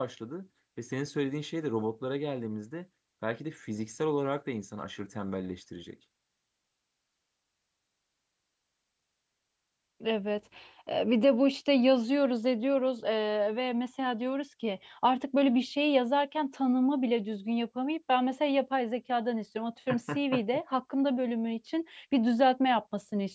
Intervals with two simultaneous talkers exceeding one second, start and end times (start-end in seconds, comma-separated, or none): none